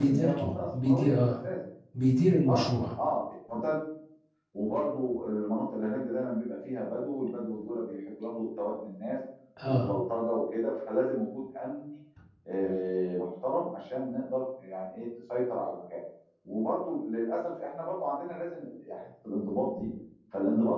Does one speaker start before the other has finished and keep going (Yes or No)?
Yes